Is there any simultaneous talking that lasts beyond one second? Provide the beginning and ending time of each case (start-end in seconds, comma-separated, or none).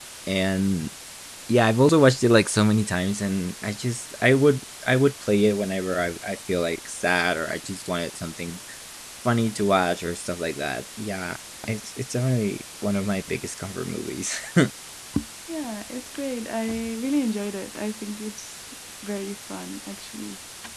none